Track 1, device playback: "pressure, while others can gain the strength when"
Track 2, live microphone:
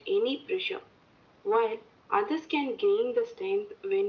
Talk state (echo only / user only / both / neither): echo only